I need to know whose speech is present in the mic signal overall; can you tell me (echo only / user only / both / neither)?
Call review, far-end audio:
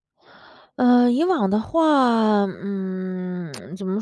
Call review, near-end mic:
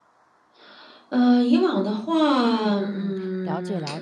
both